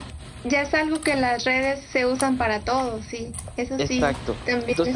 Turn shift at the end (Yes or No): Yes